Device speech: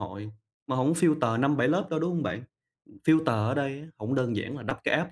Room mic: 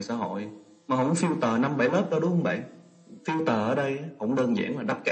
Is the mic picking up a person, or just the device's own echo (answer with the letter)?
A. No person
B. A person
A